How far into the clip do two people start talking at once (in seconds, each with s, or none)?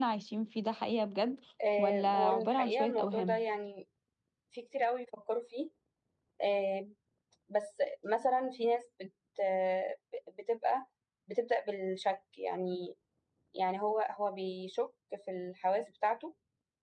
1.8 s